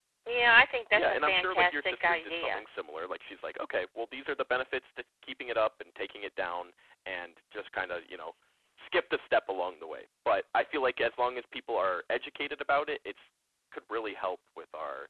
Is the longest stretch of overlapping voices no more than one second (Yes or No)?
No